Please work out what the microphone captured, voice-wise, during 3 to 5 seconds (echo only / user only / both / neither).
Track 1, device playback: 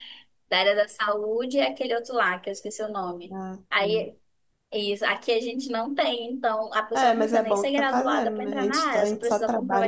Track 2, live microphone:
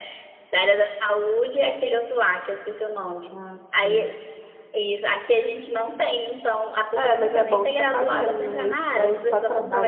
echo only